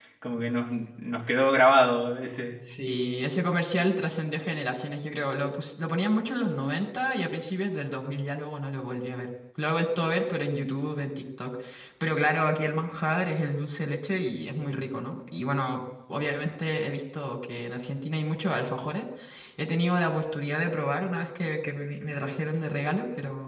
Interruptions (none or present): none